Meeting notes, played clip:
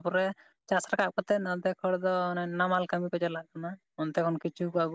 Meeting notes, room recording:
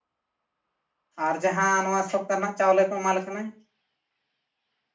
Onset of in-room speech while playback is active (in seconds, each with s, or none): 1.3 s